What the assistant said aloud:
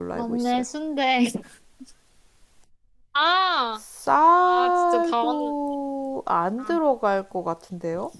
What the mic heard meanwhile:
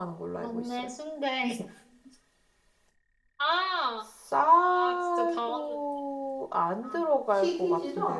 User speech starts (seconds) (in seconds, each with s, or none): 7.3 s